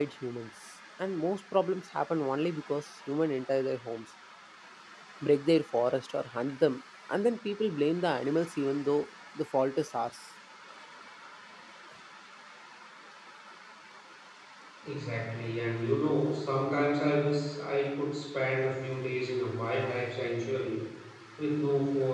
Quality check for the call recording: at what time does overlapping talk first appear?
none

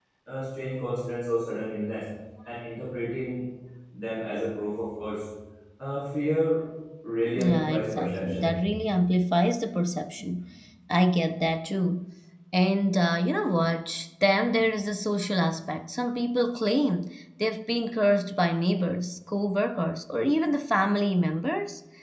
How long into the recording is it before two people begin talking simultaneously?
7.3 s

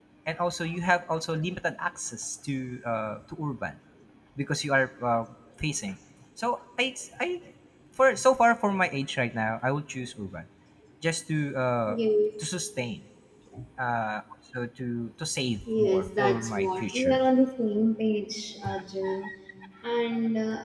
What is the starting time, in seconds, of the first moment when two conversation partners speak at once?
15.7 s

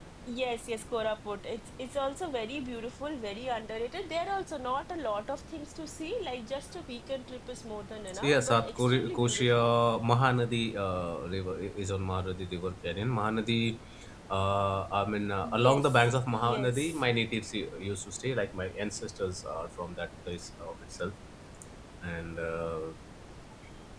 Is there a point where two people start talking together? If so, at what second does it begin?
8.1 s

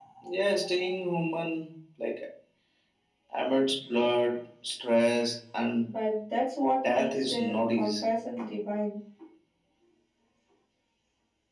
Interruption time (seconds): 6.8 s

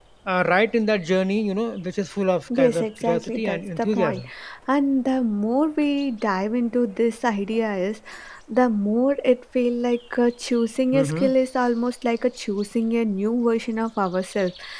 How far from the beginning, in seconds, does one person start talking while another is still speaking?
2.6 s

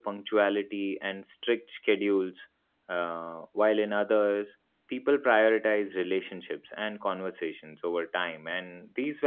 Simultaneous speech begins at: none

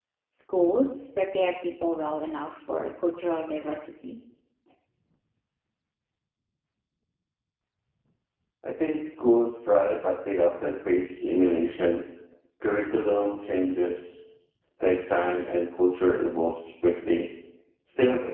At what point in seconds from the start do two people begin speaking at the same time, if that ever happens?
none

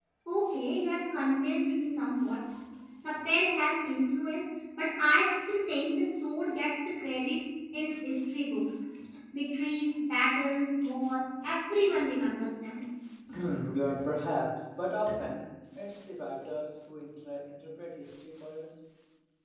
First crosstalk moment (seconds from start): none

